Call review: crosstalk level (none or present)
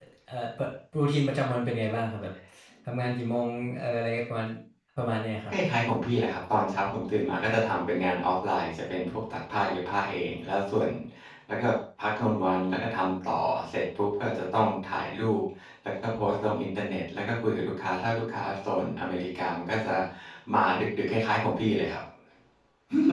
none